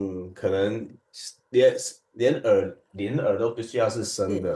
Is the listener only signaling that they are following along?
Yes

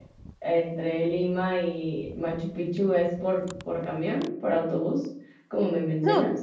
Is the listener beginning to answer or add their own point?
Yes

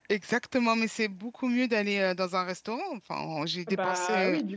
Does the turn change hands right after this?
Yes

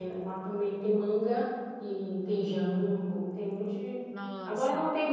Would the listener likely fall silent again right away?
Yes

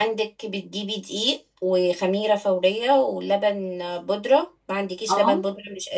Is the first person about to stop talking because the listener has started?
No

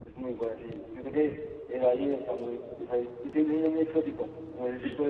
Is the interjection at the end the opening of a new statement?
No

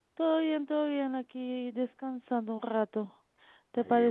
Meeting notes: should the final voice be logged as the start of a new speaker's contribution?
No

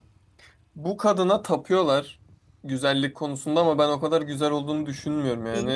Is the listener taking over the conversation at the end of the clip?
No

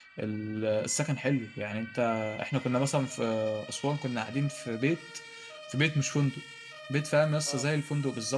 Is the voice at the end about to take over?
No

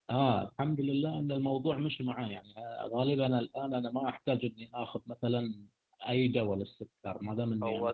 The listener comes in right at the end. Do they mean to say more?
No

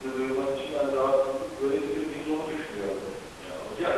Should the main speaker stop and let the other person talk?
Yes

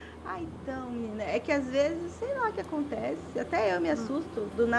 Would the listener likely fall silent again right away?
Yes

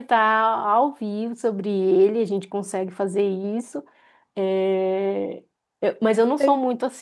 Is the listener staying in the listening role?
Yes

